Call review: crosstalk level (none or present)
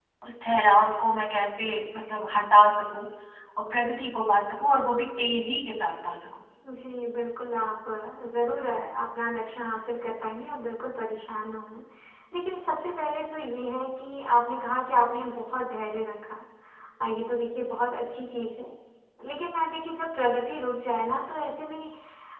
none